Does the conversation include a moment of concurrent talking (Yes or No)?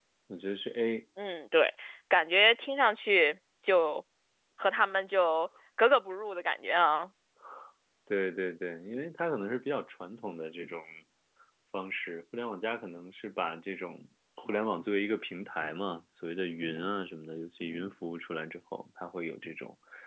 No